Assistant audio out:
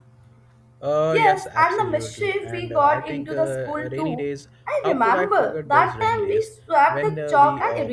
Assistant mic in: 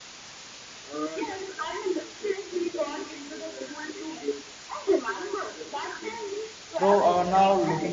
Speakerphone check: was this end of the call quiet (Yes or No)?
No